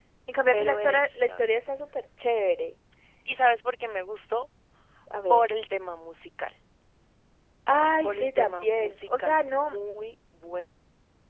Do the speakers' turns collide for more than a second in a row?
Yes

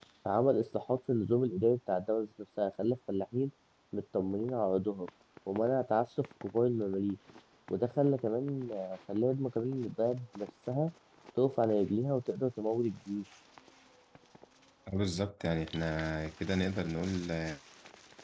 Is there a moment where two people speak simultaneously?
No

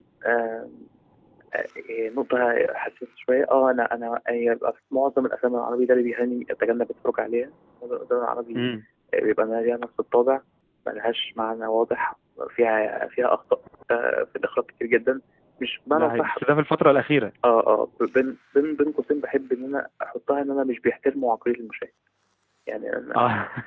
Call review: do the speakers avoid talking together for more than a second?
Yes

